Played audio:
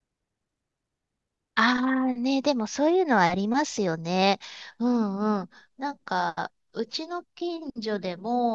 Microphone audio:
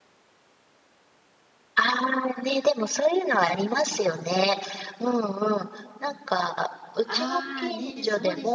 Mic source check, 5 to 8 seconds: both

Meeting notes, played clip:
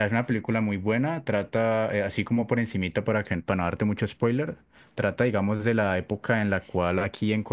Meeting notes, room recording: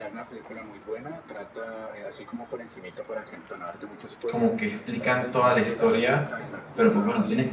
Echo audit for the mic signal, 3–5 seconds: both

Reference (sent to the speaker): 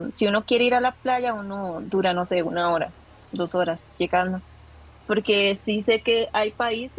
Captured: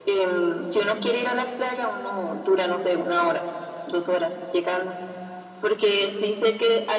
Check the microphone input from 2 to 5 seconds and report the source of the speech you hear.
echo only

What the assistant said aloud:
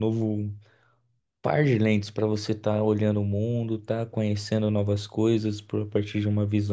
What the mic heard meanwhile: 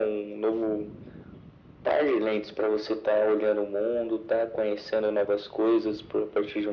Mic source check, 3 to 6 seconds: echo only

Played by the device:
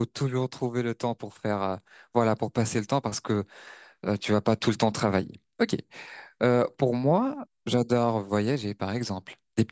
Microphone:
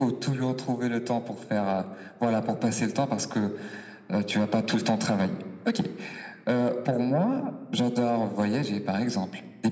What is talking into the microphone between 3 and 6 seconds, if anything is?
echo only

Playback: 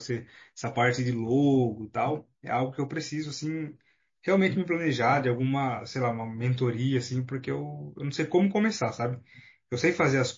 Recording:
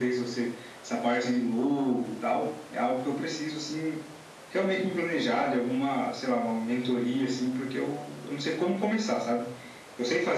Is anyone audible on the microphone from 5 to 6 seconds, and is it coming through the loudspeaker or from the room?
echo only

